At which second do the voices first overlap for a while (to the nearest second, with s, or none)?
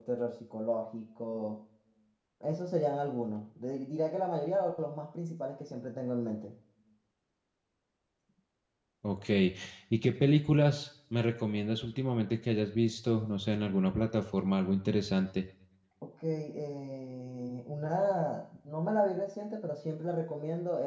none